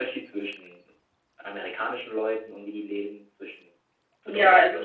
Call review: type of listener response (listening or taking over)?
taking over